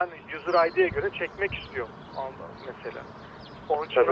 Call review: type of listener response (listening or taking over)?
taking over